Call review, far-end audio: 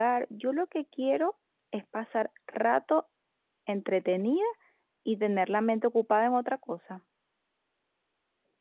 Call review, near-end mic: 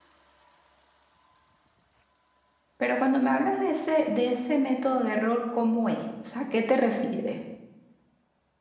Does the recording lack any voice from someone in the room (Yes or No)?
No